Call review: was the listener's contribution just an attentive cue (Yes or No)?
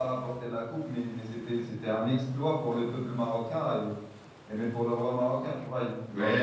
No